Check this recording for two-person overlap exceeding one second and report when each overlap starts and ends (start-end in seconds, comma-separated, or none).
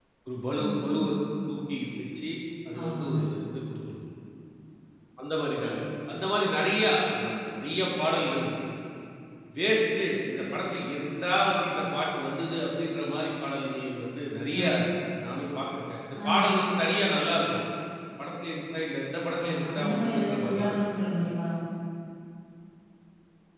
19.4-20.8